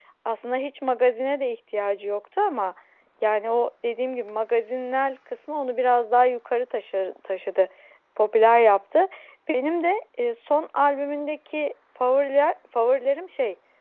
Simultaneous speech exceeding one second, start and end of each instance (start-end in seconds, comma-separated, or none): none